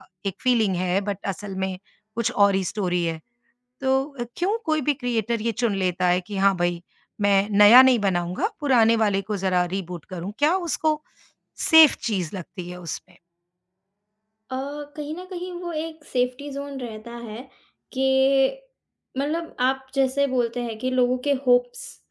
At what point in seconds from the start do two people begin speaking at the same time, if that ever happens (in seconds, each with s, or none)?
none